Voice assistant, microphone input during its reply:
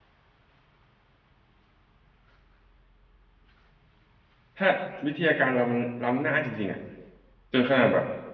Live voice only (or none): ถ้าวิทยาการเรามันล้ำหน้าจริงๆอ่ะจนขนาดแบบ